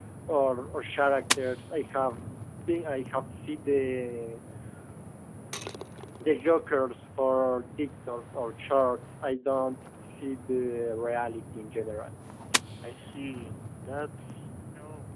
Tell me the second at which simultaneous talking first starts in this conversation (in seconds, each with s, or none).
none